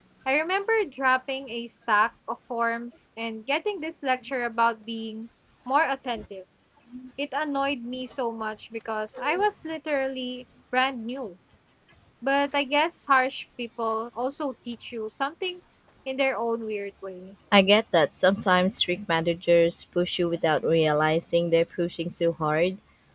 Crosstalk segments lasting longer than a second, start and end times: none

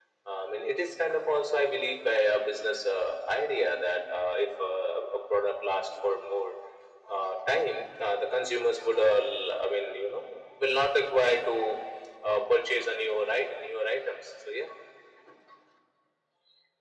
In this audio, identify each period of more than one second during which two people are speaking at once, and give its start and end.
none

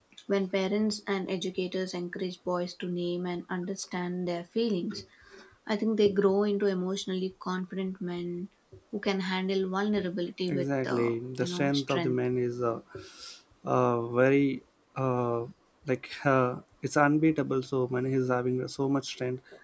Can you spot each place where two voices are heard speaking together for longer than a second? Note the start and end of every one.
10.5-12.2

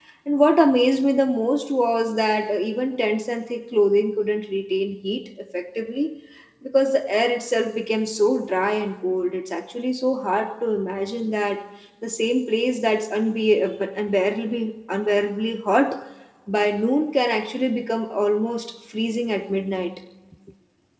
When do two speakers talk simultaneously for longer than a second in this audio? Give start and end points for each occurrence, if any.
none

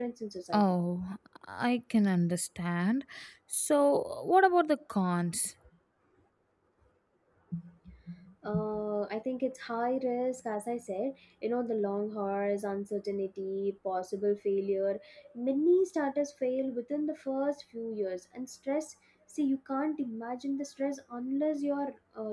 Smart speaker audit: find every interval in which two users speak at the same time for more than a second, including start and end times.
none

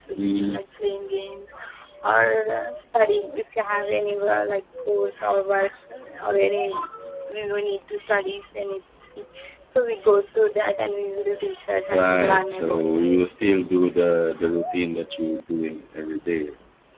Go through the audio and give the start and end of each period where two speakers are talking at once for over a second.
11.9-13.1

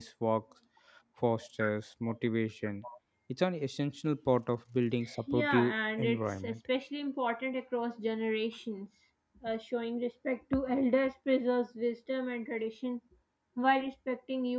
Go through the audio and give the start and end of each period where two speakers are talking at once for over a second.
5.3-6.6

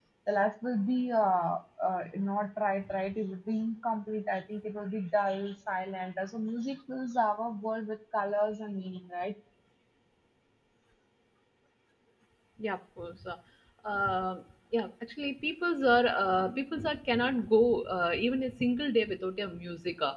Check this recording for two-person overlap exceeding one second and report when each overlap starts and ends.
none

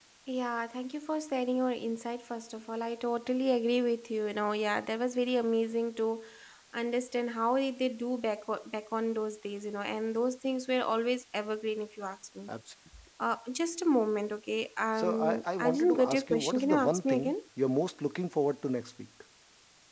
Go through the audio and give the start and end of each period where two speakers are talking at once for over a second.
15.0-17.3

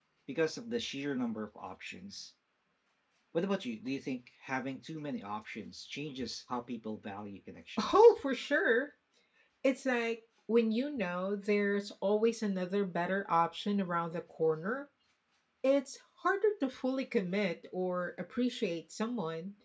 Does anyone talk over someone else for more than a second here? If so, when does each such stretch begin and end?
none

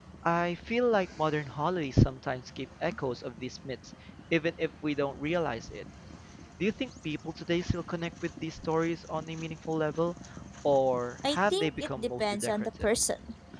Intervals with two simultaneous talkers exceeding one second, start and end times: 11.3-12.9

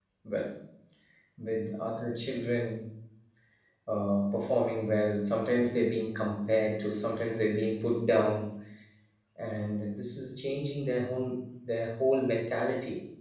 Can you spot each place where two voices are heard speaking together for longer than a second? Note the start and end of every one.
none

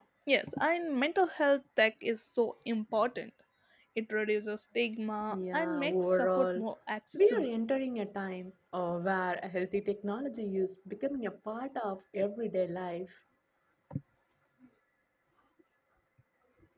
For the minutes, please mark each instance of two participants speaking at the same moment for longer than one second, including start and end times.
5.3-6.6

